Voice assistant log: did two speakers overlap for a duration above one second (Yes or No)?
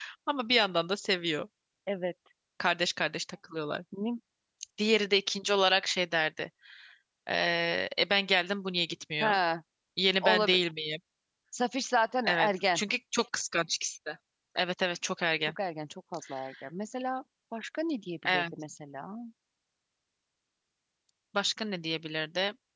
No